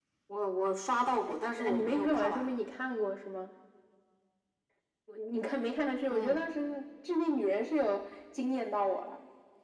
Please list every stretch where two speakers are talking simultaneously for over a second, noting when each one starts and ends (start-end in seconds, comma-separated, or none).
1.3-2.5